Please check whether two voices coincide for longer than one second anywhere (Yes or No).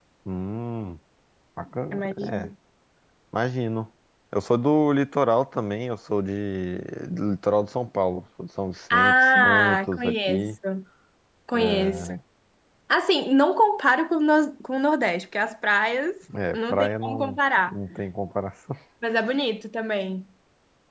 Yes